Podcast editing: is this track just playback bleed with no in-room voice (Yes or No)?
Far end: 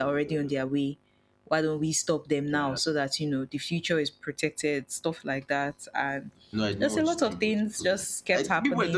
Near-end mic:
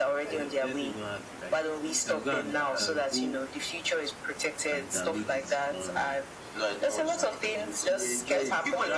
No